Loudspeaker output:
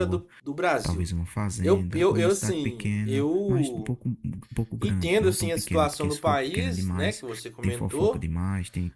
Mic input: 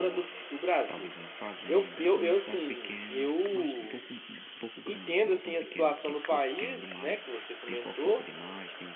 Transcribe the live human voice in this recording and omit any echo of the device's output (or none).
none